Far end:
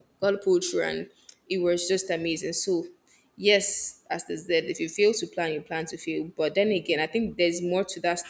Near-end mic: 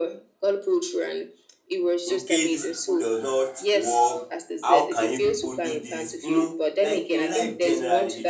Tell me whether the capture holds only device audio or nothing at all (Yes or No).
No